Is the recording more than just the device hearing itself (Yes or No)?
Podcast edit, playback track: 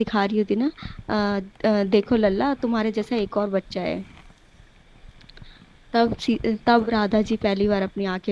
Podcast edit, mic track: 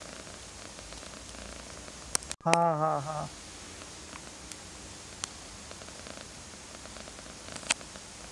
Yes